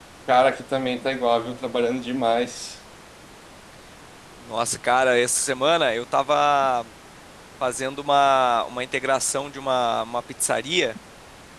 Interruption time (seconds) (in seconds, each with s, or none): none